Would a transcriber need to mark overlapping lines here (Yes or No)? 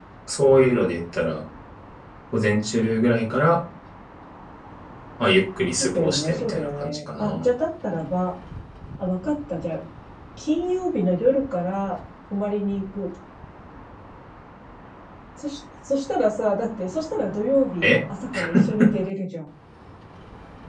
Yes